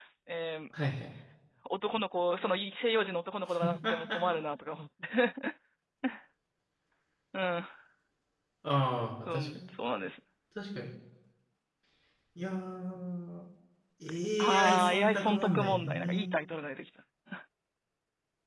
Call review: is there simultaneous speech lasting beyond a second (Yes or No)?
Yes